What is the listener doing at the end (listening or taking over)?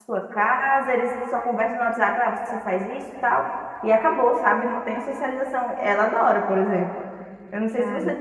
listening